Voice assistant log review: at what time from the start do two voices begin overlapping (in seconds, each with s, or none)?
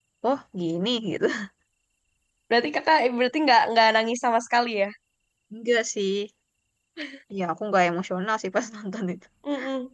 none